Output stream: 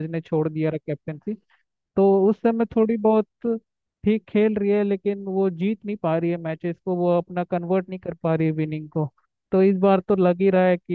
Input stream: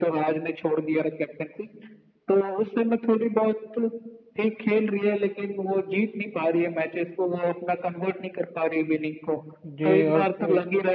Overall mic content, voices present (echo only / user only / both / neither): both